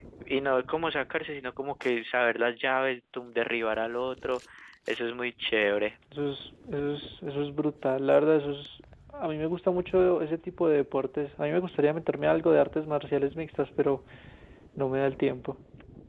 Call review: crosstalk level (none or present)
none